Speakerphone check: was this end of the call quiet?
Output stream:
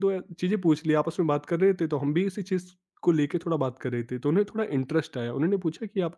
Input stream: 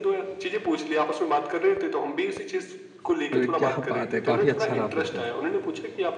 No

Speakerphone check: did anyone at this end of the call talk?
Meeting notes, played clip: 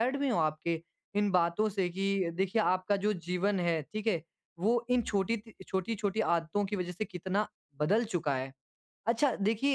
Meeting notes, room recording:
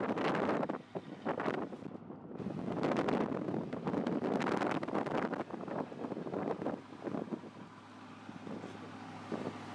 No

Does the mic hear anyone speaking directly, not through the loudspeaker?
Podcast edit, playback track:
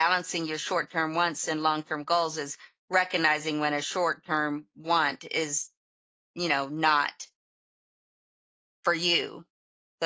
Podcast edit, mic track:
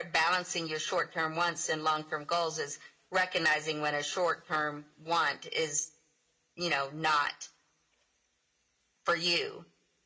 No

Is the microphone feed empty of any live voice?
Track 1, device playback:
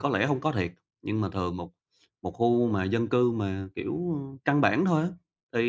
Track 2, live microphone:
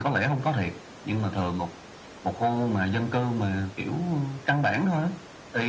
Yes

